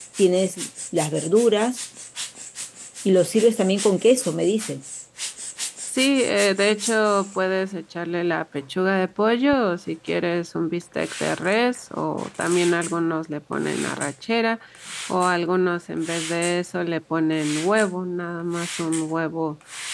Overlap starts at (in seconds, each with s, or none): none